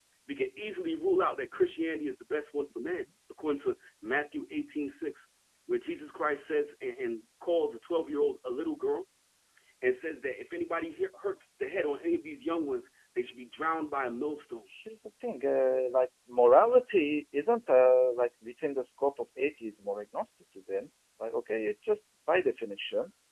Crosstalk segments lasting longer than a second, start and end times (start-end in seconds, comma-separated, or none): none